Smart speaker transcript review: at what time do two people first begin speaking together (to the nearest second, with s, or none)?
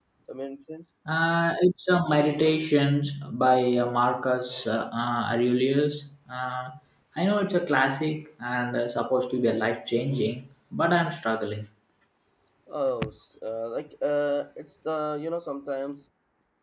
none